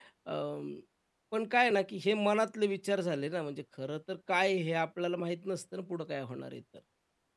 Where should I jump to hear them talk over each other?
none

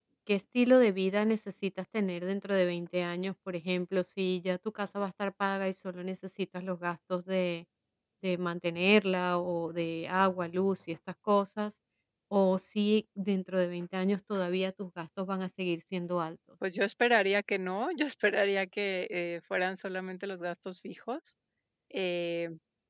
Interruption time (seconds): none

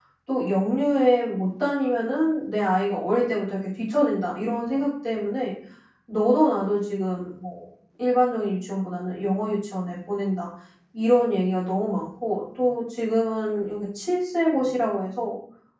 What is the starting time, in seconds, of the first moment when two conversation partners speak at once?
none

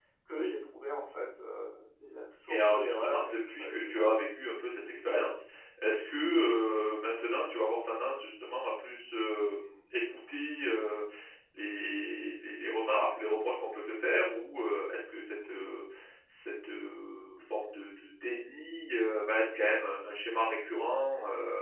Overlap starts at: 2.5 s

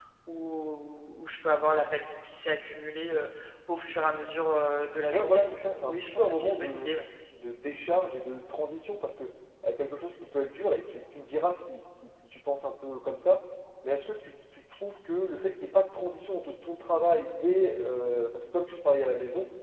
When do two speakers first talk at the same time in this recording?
5.1 s

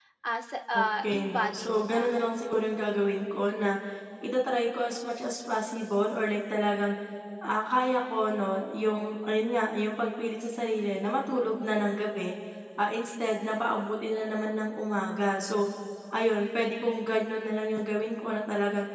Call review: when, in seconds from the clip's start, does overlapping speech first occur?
0.8 s

